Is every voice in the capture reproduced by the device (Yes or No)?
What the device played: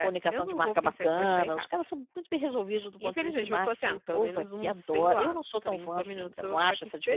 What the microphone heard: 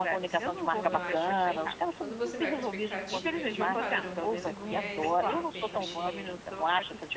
No